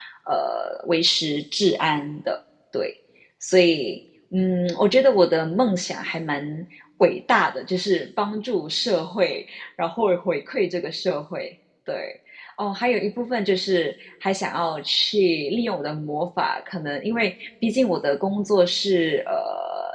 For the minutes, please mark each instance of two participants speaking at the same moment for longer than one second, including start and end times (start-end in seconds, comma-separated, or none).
none